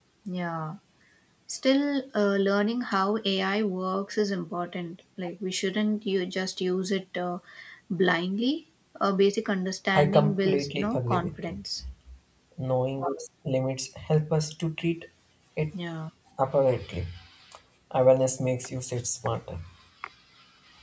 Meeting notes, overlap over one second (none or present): present